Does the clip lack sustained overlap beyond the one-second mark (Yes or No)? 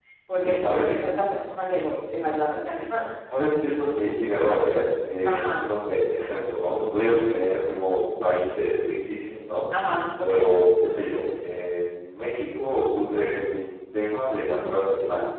Yes